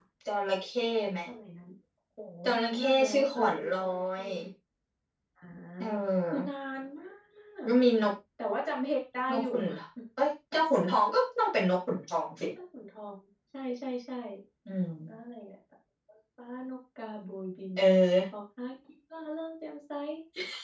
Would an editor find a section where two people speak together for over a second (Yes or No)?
Yes